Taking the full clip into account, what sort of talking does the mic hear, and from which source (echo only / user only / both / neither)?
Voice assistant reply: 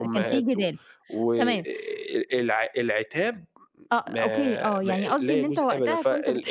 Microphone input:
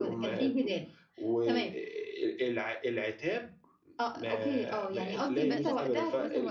both